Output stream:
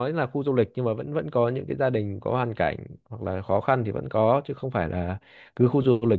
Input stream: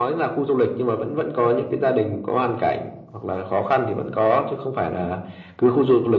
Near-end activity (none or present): none